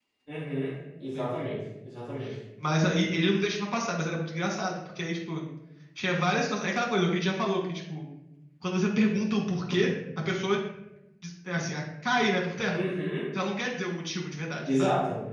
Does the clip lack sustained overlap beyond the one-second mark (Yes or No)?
Yes